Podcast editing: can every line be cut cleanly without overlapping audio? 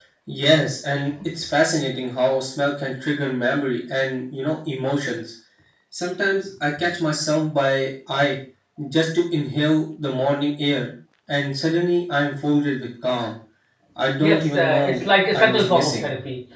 No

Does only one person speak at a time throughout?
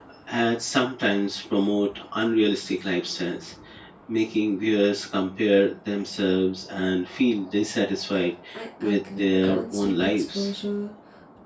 No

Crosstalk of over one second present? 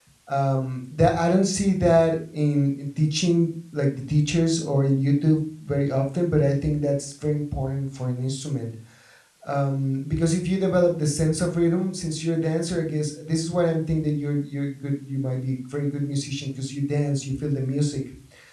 No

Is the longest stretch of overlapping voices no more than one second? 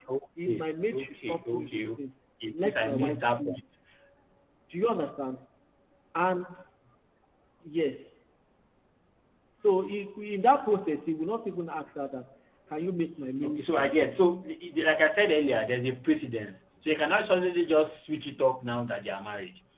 No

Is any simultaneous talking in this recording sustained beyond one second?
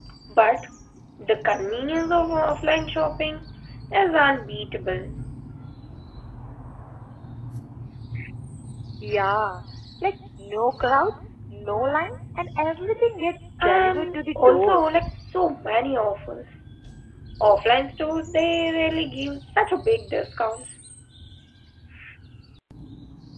Yes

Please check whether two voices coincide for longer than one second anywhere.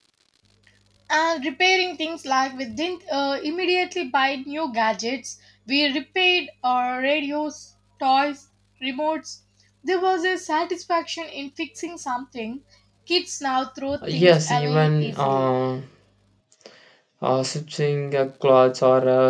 Yes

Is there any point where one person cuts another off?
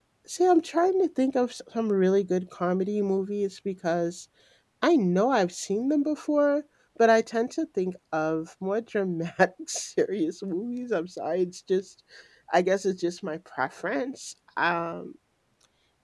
No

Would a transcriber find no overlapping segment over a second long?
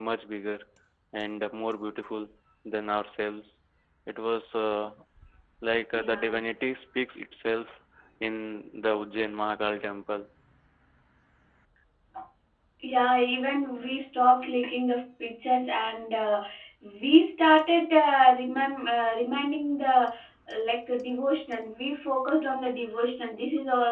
Yes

